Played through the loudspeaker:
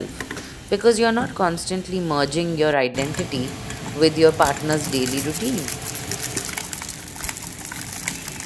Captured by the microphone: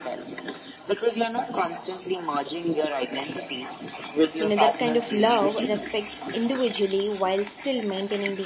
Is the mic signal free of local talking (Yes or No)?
No